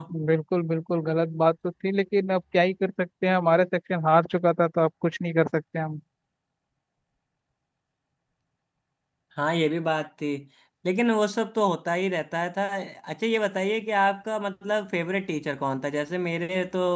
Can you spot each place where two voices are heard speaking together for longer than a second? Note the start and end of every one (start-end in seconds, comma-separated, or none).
none